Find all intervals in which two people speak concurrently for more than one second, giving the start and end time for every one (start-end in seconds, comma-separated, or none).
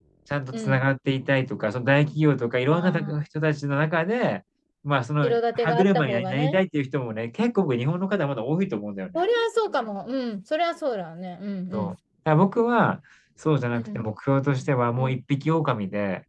5.2-6.6